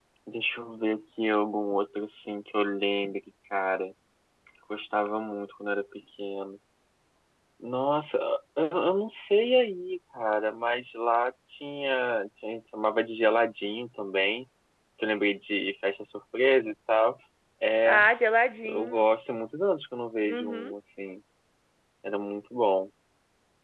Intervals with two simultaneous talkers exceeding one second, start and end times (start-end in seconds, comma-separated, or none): none